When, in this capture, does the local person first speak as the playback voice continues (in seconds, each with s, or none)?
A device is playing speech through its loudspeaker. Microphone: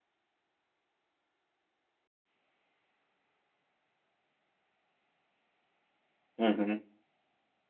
6.4 s